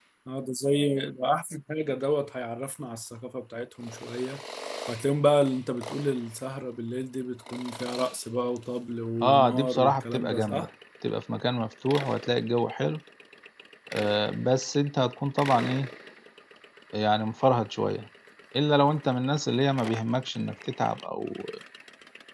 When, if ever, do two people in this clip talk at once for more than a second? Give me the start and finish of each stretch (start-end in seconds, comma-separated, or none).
9.2-10.7